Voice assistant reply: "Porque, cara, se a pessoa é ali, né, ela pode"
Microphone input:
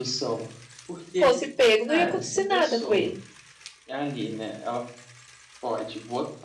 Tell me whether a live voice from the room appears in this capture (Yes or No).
Yes